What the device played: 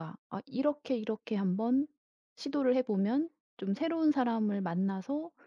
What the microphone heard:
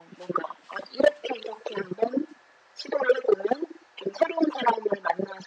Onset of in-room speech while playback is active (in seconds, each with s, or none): none